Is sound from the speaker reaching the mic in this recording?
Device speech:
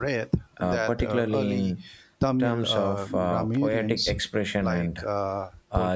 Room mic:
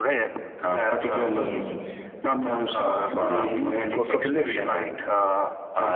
Yes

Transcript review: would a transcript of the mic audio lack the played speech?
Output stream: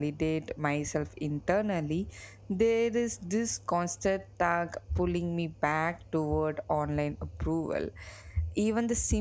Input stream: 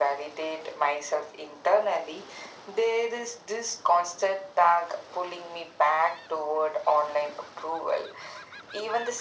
No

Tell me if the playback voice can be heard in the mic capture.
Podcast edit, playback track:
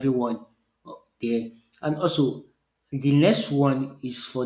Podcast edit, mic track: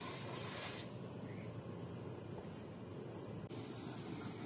No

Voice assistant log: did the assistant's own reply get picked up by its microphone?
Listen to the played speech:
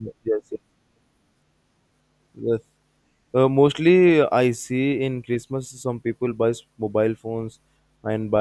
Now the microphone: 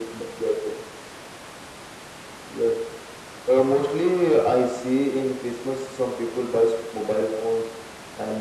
Yes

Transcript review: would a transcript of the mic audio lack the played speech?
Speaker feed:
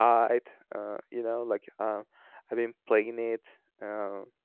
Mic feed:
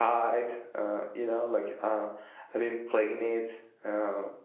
No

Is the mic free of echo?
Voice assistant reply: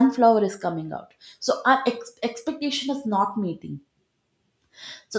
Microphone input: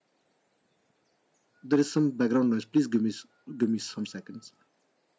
Yes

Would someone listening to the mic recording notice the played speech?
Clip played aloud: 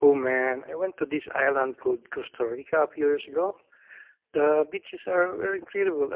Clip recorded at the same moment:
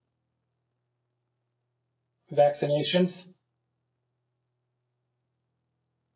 No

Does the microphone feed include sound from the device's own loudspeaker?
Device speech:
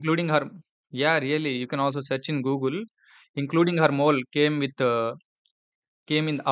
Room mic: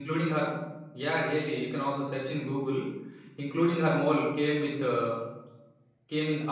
Yes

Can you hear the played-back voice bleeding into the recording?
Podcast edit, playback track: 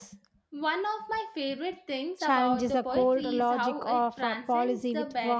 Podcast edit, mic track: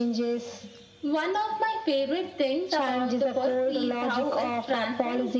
Yes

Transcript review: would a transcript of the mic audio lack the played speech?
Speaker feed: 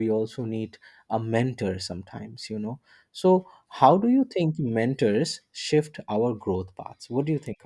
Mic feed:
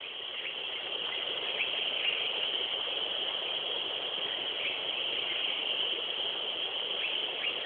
Yes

